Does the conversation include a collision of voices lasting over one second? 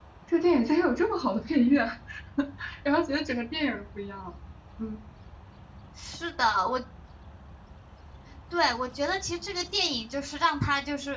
No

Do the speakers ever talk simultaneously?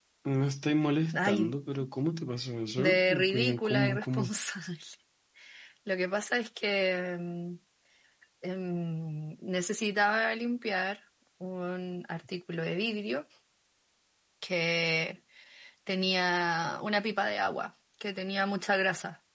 Yes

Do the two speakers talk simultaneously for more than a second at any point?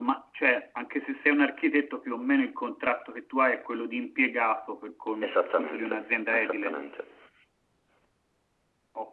Yes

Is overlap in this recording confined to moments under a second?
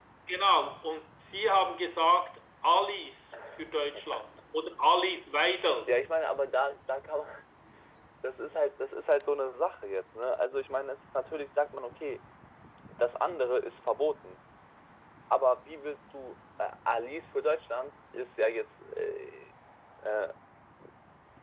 Yes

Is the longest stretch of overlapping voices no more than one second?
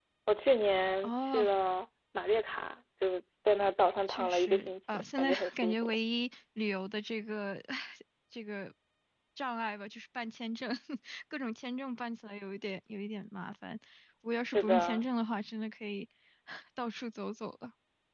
No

